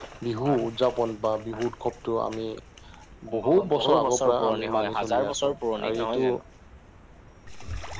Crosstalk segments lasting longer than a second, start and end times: 3.4-6.2

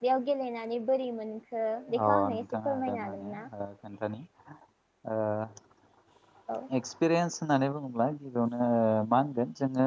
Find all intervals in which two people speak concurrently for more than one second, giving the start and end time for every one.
2.0-3.4

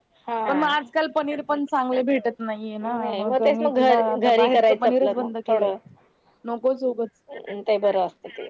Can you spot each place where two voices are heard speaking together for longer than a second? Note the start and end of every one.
2.9-5.7

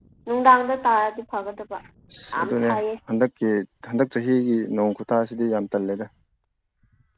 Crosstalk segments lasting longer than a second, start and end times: none

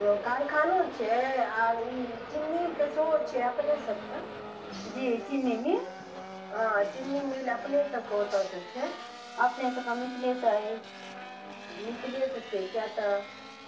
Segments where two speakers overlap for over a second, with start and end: none

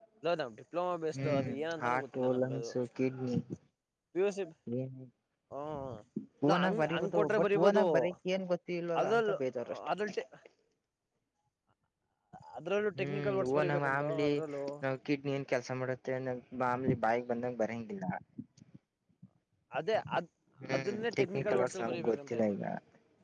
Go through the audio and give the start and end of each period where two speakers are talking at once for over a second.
1.3-2.7, 6.5-7.8, 13.0-14.3, 20.8-22.4

